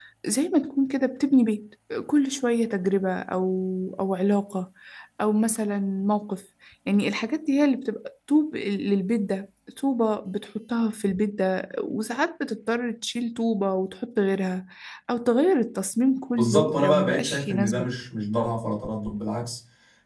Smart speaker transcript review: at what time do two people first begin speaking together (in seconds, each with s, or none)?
16.3 s